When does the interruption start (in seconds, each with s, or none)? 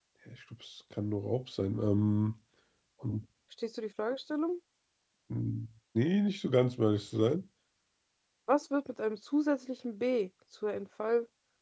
none